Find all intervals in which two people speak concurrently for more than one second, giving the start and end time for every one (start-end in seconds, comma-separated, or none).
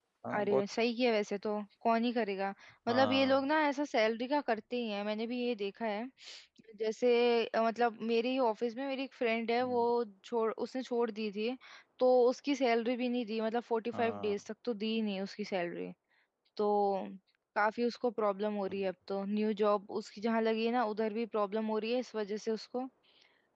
none